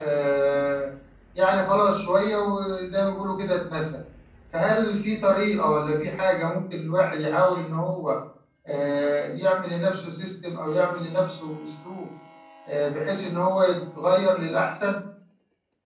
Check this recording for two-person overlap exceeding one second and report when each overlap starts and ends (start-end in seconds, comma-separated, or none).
none